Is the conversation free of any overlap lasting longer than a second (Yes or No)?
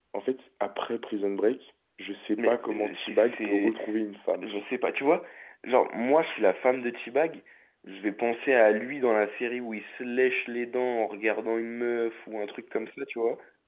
No